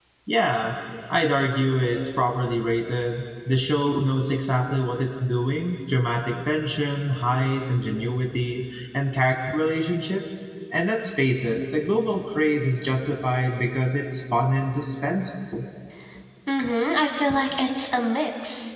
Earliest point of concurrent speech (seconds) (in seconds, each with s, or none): none